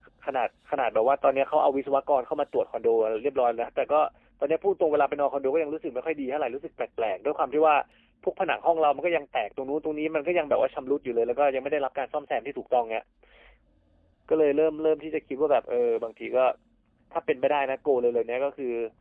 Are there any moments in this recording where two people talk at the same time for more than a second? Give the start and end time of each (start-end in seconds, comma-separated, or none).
none